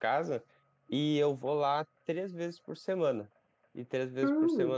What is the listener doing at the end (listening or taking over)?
taking over